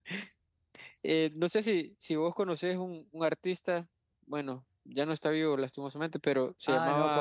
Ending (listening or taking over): taking over